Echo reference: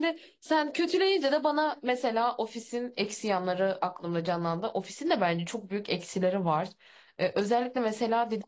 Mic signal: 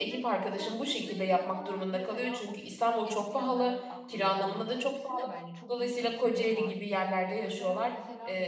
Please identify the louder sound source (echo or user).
user